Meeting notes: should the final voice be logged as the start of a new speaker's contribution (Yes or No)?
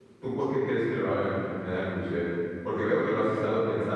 No